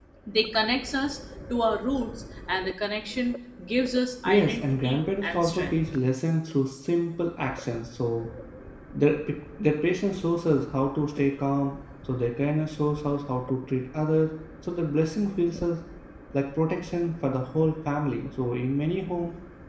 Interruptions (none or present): present